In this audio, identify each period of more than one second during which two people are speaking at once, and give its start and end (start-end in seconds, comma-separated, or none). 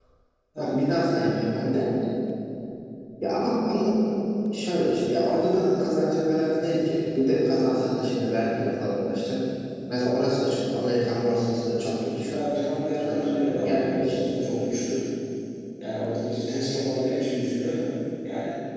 13.0-14.2